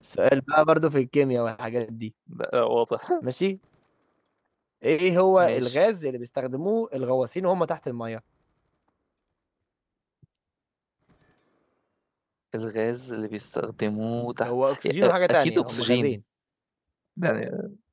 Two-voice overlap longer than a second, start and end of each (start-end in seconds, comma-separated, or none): 14.4-16.2